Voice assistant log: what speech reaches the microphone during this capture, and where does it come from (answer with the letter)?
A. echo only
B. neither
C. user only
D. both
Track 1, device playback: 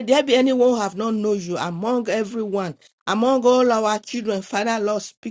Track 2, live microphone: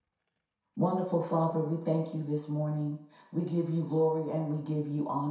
C